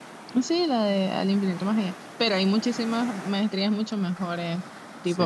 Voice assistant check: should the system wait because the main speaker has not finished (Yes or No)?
No